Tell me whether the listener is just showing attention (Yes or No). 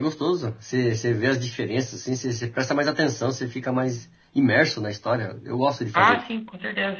No